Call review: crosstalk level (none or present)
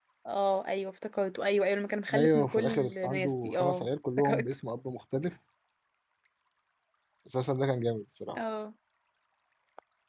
present